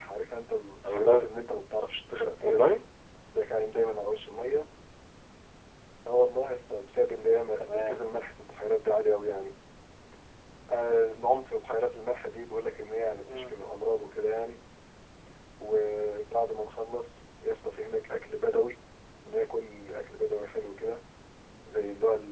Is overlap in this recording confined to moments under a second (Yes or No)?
Yes